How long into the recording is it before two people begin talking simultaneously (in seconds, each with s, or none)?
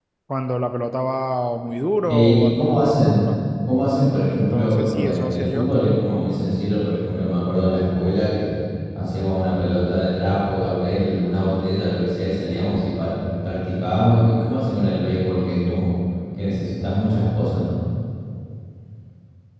2.0 s